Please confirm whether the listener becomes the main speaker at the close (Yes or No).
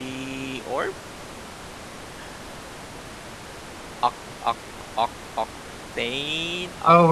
Yes